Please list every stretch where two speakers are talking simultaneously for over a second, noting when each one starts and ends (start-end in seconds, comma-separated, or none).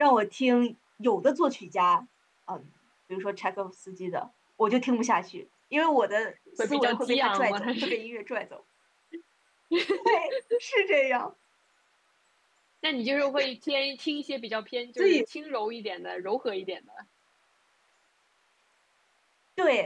6.6-8.0